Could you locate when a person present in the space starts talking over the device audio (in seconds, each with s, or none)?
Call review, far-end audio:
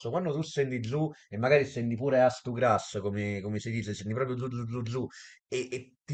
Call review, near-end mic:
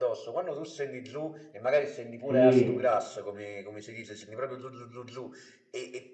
2.3 s